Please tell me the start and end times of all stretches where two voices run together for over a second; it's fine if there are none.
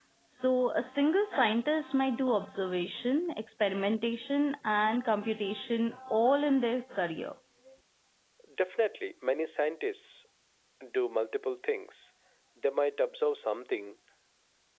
none

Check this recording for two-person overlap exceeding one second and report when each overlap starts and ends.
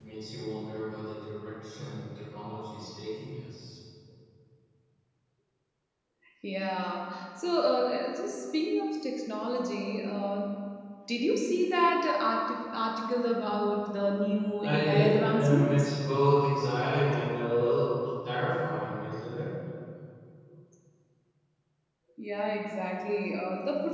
14.6-15.9

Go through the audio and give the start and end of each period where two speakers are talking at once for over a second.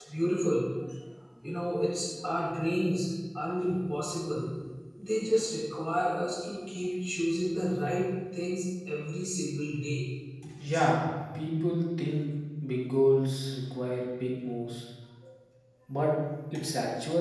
none

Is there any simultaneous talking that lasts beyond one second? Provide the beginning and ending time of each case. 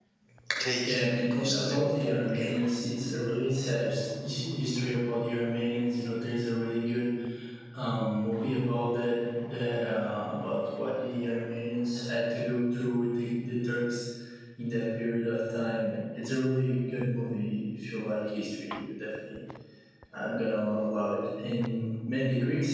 0.8-2.5

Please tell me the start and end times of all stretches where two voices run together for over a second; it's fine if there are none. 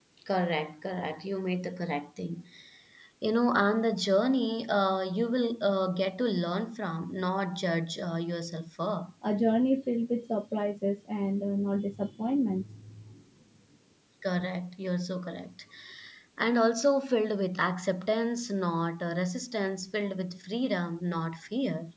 none

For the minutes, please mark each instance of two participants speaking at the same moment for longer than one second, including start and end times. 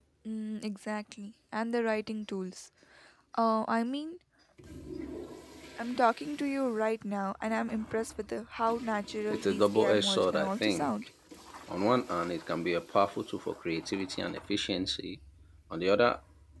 9.3-10.9

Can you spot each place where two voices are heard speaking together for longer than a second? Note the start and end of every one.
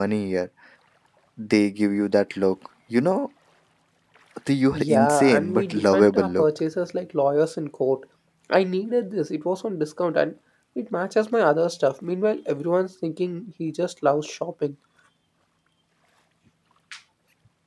4.7-6.5

